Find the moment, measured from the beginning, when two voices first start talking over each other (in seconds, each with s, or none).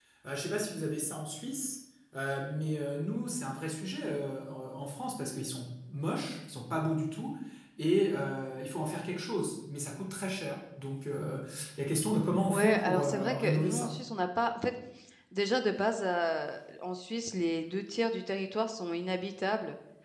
12.5 s